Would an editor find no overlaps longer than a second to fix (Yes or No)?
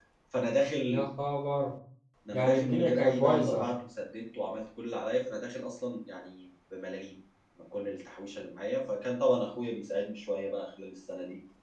No